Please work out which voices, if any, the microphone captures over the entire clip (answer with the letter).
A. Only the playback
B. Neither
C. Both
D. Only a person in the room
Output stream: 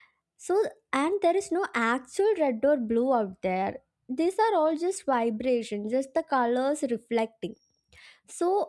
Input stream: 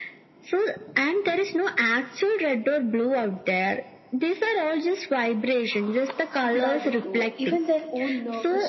C